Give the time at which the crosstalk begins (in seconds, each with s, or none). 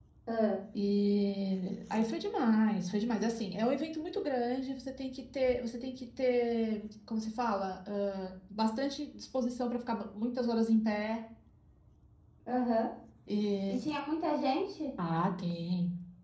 none